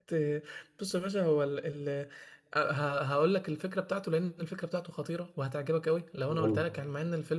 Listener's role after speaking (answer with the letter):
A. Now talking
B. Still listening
B